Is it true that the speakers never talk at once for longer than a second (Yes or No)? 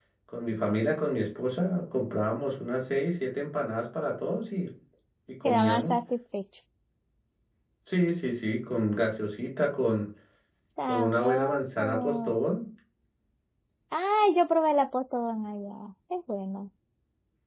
No